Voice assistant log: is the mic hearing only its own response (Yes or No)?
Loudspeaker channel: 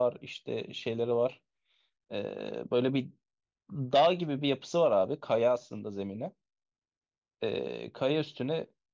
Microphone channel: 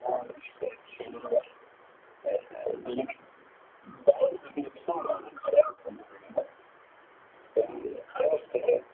Yes